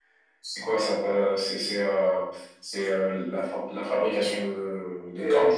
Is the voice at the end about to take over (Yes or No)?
Yes